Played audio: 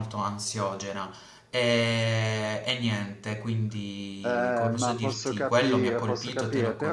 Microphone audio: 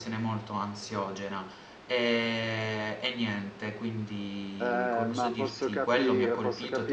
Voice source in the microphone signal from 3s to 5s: echo only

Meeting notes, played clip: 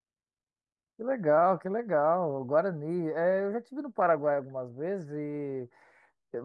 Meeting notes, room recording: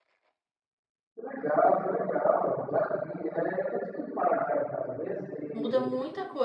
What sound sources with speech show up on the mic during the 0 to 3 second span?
echo only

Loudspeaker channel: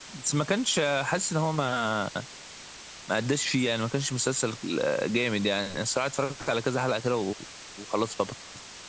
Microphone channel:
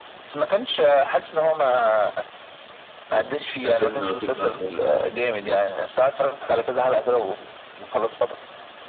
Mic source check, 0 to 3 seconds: echo only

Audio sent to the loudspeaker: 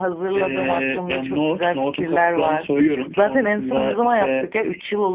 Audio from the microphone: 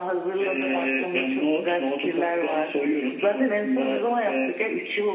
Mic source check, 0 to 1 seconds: echo only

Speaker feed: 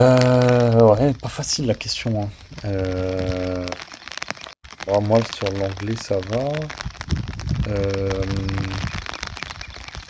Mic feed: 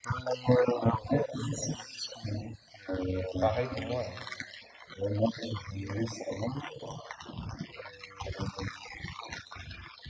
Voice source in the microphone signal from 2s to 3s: echo only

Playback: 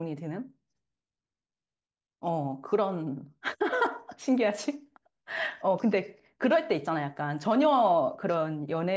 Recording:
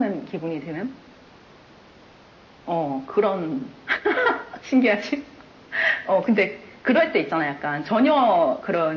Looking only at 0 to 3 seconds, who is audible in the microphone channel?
echo only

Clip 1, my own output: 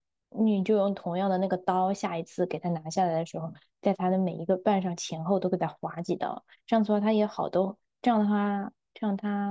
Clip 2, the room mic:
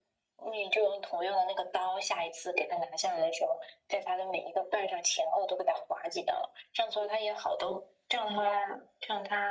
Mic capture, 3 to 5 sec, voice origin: echo only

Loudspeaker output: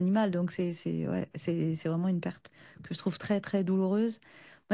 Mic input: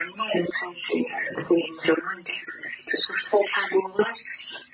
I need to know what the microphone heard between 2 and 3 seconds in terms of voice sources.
echo only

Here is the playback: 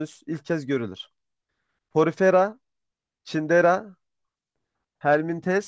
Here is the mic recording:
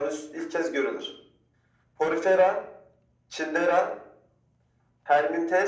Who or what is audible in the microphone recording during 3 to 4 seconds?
echo only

